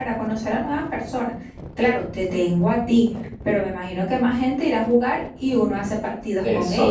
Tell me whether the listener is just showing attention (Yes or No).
No